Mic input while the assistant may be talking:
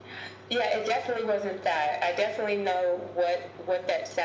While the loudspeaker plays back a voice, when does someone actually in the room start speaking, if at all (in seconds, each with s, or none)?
none